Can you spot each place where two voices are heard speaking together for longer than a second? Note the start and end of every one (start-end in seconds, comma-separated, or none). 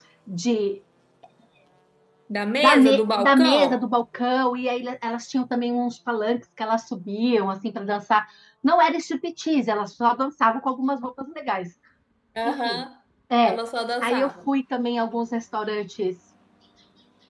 2.6-3.8